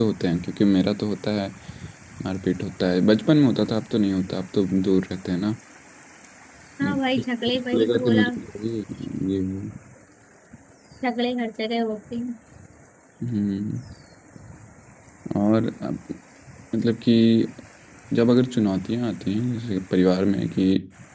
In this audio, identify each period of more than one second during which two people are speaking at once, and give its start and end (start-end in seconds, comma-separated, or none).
6.8-8.3